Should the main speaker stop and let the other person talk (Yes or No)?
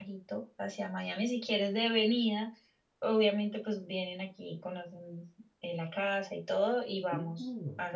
Yes